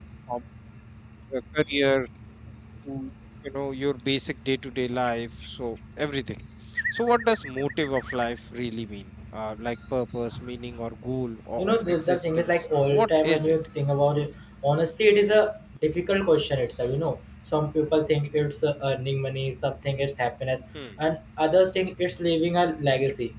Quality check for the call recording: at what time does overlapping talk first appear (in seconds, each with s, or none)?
11.6 s